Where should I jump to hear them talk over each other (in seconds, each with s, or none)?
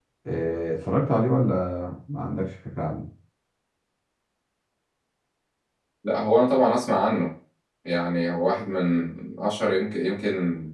none